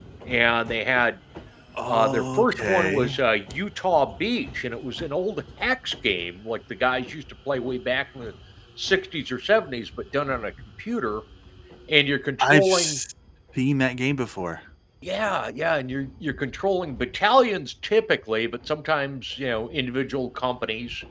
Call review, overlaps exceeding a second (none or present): present